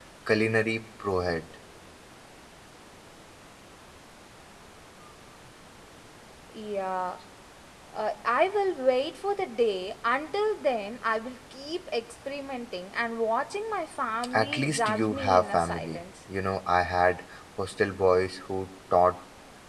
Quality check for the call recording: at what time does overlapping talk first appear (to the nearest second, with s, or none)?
14 s